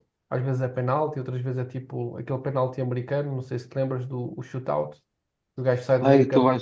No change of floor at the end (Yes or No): No